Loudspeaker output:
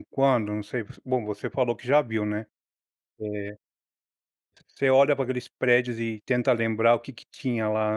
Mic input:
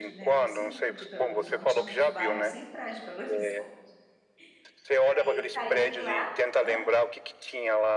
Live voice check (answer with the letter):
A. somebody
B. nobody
A